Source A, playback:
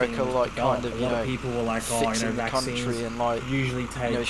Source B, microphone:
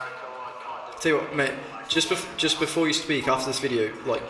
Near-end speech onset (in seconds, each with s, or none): 1.0 s